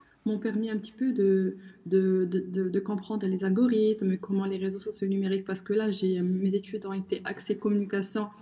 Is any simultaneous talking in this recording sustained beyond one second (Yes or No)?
No